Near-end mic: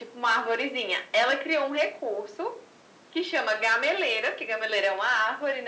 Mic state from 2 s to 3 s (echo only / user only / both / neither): echo only